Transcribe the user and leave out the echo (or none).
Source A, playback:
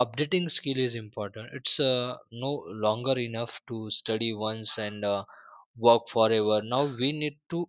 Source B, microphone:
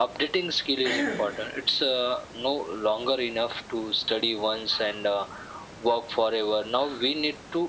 uh,